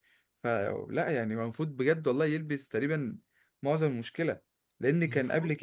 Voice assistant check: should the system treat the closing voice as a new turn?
No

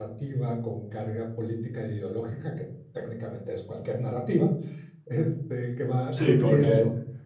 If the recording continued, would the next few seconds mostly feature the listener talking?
Yes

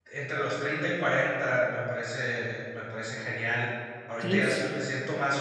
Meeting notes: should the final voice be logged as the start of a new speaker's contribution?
No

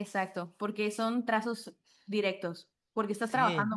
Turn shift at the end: No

